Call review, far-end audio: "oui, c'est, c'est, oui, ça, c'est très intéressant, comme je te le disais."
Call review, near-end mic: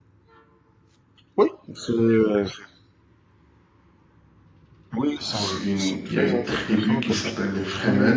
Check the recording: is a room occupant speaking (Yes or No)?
Yes